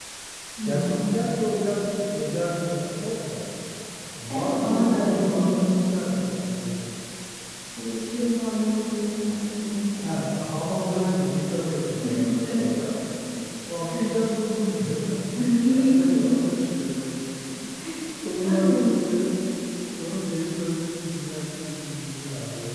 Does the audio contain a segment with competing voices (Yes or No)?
Yes